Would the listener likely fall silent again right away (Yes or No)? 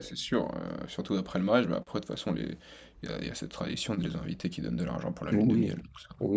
No